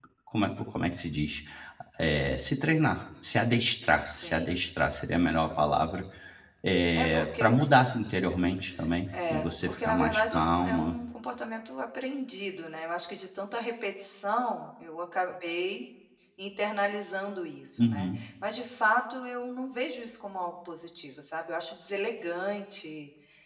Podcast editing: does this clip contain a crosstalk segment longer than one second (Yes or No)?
Yes